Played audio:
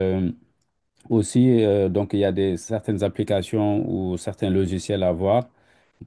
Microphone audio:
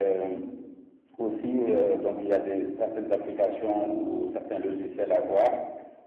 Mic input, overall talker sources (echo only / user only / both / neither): echo only